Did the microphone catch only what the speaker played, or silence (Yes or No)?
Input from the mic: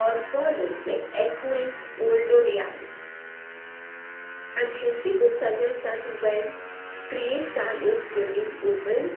Yes